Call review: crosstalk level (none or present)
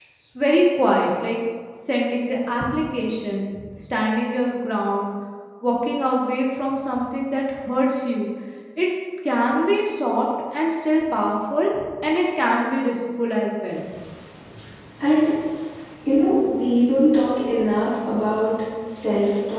none